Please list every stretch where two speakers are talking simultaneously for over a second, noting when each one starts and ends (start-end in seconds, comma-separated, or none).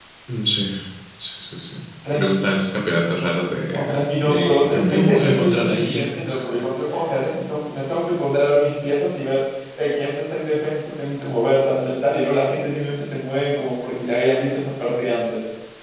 3.8-6.1